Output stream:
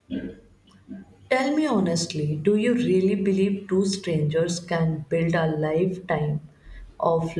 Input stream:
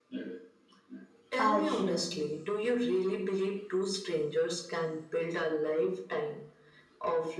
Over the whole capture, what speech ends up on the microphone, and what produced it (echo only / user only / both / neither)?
both